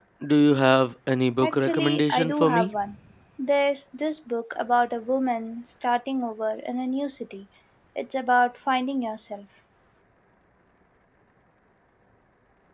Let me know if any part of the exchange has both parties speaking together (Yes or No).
Yes